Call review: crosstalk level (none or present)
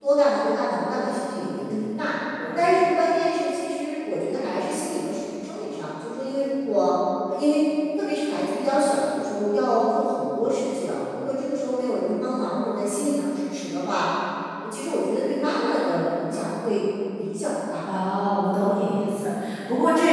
none